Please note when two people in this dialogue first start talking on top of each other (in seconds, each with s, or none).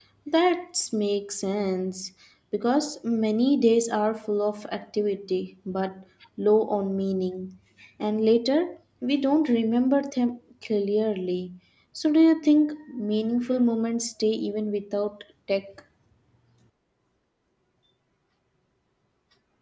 none